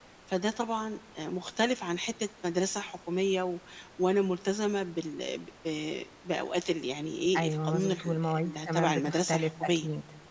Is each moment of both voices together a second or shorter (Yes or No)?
No